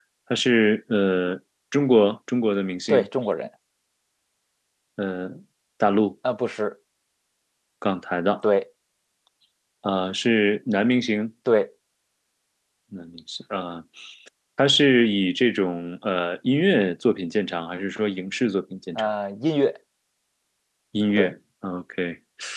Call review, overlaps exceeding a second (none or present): none